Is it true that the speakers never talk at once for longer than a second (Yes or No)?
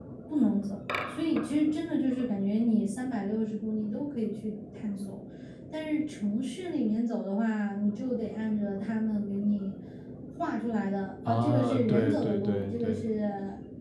No